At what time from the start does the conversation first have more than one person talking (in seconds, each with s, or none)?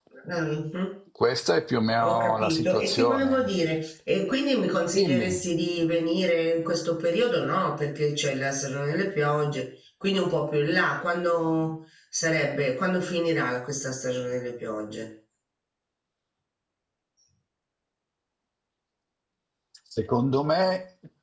2.0 s